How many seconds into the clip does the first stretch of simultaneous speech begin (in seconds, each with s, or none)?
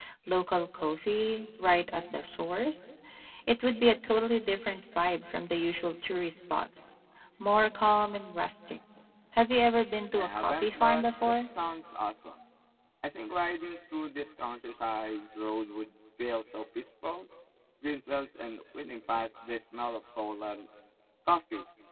10.1 s